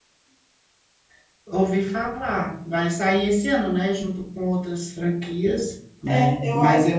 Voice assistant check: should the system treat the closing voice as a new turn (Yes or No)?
Yes